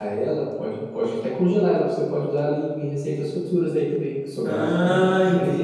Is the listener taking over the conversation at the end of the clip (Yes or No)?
Yes